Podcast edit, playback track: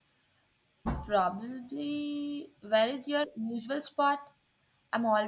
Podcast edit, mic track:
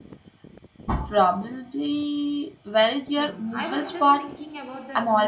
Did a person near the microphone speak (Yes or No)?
Yes